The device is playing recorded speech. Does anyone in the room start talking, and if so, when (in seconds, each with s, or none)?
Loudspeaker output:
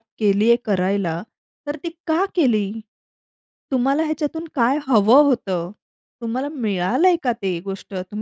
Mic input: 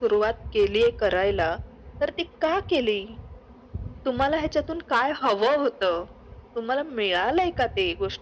none